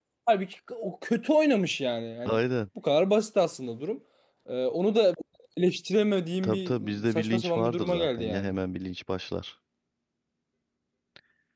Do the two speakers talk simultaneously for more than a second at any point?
Yes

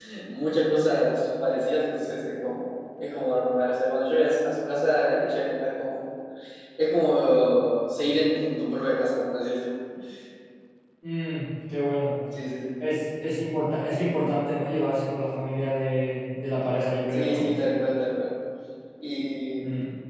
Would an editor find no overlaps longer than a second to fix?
Yes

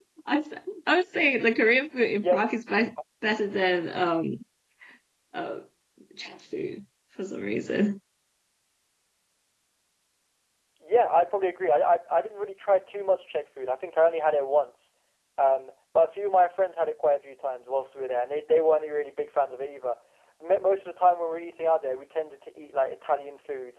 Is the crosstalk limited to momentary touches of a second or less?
Yes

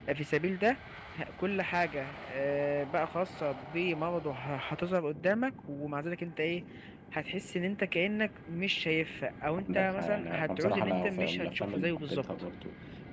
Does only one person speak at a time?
No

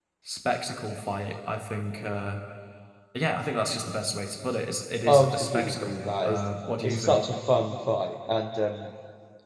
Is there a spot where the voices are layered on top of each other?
Yes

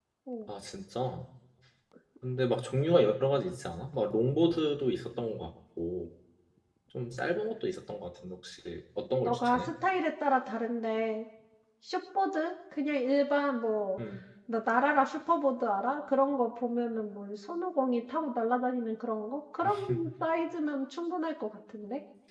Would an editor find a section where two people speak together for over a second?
No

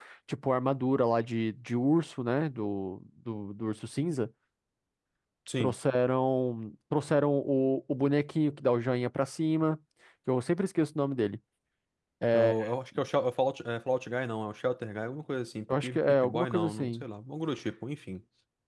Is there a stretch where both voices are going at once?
Yes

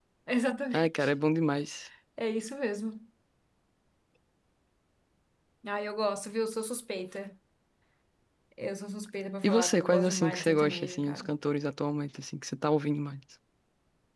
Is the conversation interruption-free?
No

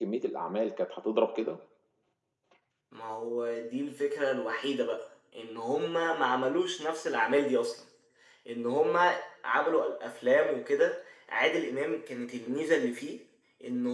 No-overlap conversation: Yes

